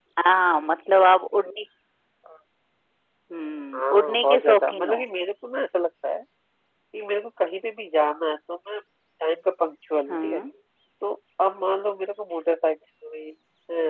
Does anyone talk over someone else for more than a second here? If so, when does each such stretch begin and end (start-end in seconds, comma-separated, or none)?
3.7-5.0